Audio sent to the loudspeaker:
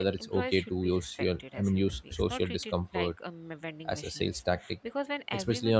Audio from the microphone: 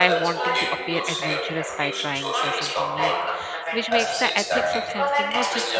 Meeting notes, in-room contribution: present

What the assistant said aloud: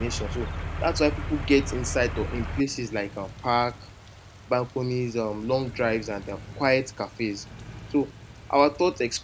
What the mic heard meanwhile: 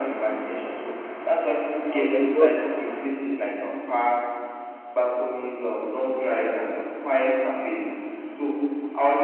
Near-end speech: present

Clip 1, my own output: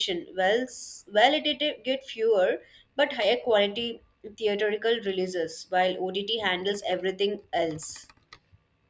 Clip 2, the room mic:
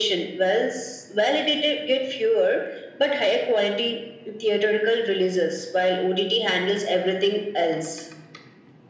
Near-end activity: none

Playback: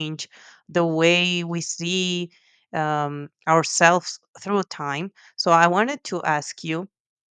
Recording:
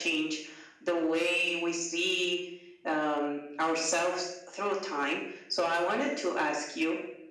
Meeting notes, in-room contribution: none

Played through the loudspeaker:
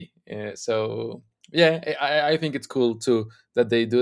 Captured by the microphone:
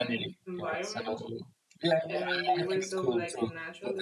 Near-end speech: present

